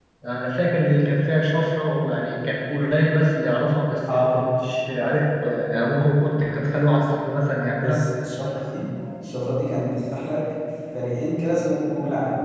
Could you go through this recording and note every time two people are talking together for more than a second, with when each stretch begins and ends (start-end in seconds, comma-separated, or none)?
none